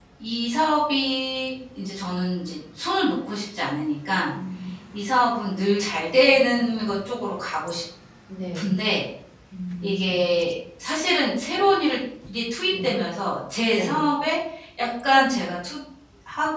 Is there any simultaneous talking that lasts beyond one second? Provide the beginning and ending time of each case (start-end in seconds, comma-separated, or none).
none